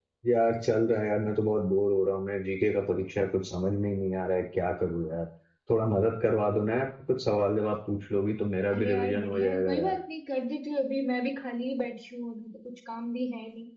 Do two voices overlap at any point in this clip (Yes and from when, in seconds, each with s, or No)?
Yes, from 8.7 s